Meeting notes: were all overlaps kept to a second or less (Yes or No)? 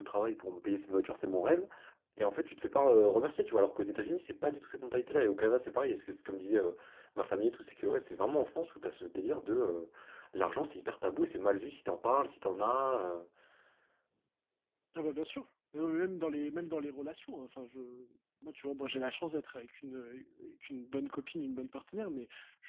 Yes